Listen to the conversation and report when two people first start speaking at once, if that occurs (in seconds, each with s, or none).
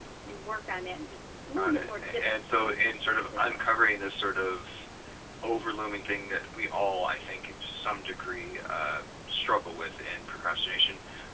1.6 s